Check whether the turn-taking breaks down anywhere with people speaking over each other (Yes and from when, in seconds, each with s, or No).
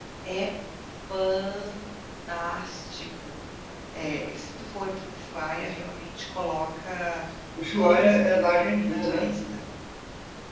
Yes, from 7.8 s